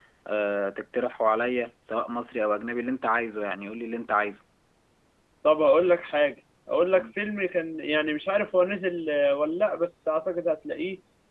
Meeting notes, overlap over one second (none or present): none